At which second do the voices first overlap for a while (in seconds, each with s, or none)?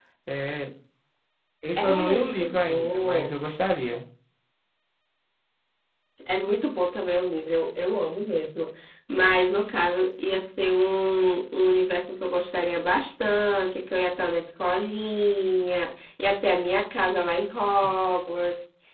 1.8 s